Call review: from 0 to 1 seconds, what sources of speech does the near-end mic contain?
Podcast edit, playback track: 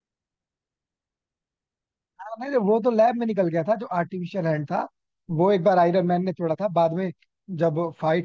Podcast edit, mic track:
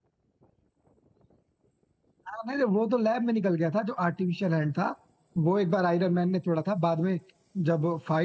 neither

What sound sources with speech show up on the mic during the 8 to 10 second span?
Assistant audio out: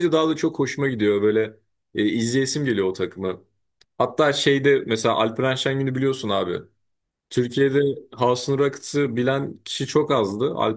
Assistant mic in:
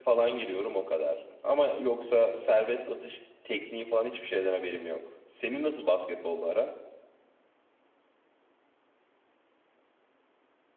neither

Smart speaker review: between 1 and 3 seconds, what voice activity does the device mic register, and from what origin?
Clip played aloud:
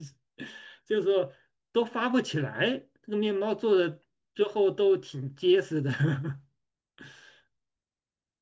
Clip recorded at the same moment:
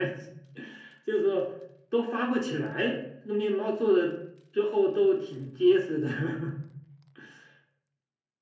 echo only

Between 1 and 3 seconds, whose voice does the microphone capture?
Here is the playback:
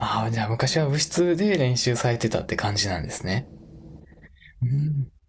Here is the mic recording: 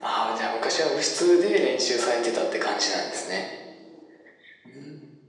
echo only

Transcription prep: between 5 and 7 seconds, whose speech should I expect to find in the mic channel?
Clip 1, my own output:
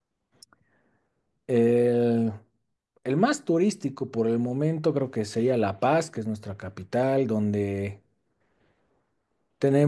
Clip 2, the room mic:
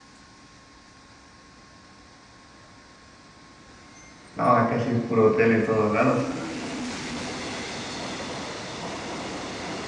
user only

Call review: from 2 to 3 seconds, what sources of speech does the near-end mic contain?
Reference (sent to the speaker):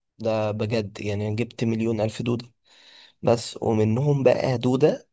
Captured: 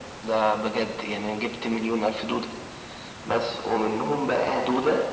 echo only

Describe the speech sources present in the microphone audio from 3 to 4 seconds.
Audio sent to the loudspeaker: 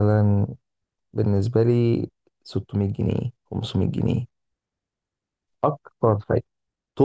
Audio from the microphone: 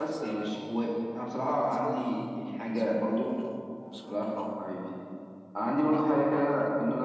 both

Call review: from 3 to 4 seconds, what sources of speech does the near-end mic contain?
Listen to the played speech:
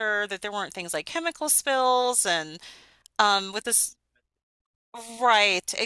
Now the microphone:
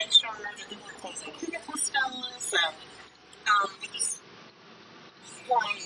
echo only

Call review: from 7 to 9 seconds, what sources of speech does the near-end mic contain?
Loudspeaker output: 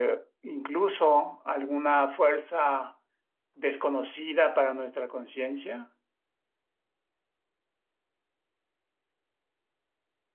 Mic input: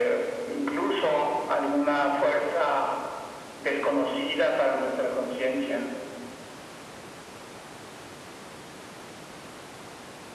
neither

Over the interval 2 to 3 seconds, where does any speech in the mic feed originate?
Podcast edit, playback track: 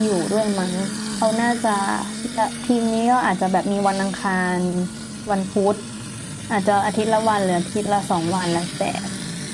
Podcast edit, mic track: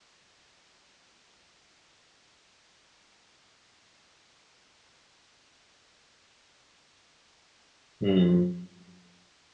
neither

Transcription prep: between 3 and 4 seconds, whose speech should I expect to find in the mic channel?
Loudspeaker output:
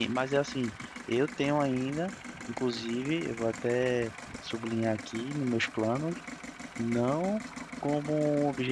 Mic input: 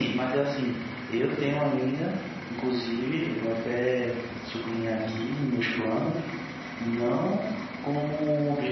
echo only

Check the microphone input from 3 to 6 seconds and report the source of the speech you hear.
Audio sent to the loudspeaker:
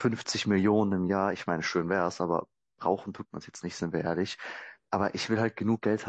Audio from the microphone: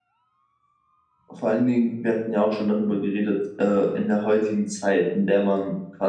user only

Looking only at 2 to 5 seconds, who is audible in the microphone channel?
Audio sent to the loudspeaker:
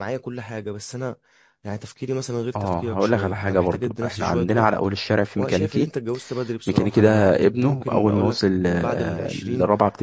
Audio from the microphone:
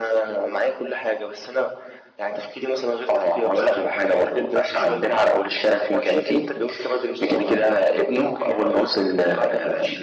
echo only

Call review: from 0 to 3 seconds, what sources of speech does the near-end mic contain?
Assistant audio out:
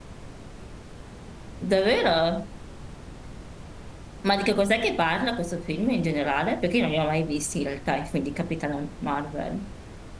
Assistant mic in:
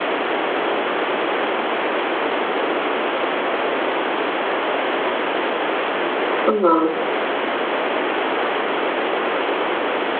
neither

